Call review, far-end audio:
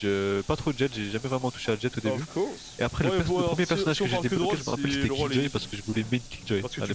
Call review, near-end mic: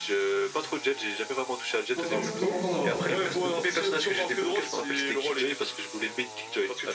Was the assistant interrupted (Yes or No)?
Yes